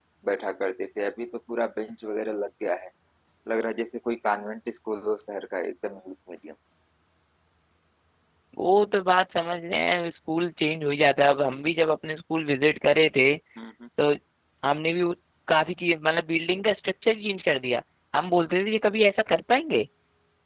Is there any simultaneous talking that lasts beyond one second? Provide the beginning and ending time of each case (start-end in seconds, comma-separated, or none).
none